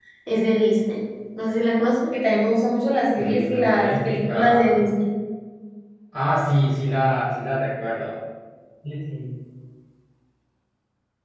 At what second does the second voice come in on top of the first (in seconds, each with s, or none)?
3.2 s